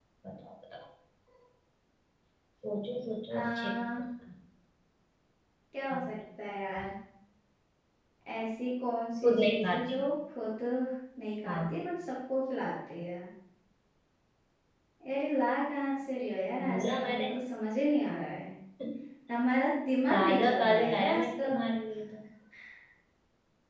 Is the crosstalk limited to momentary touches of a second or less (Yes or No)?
No